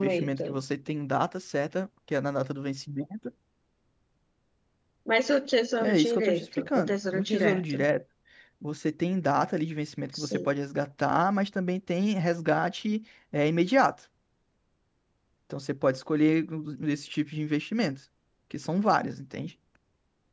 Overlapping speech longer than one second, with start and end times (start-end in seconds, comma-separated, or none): 5.8-7.8